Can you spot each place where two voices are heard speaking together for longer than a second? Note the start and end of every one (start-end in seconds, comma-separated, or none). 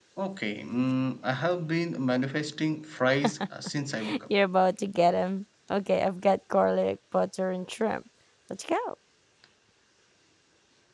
none